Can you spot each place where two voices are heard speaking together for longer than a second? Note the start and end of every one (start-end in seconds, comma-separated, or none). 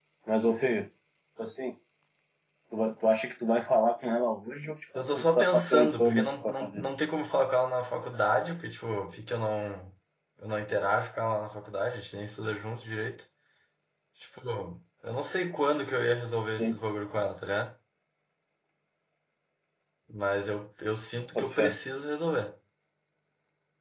5.0-6.8